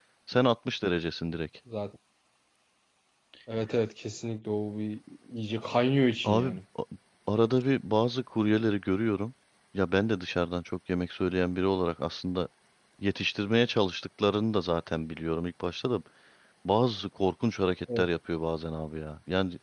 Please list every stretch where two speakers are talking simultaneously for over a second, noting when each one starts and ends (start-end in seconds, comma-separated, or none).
none